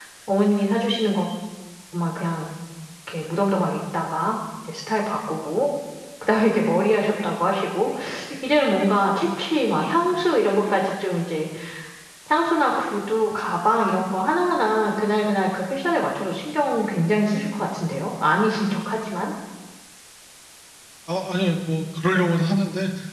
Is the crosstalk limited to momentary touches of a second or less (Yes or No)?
Yes